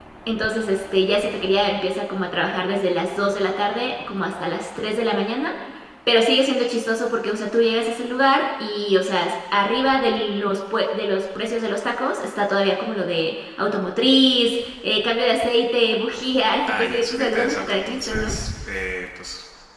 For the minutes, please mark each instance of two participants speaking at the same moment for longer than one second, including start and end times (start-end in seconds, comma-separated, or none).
16.6-18.3